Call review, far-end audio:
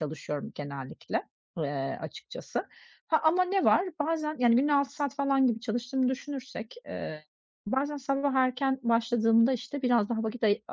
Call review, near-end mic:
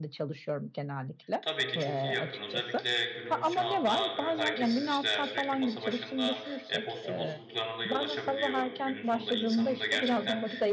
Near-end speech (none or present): present